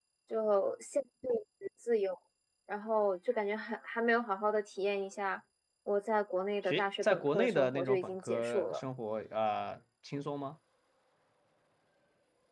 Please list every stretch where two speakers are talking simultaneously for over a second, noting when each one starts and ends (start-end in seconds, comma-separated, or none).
6.6-8.8